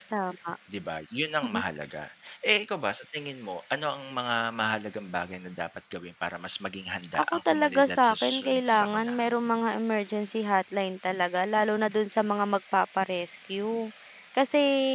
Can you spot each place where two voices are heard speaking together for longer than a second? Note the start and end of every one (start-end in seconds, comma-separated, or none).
7.2-9.2